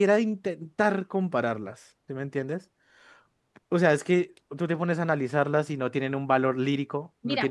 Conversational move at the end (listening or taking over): taking over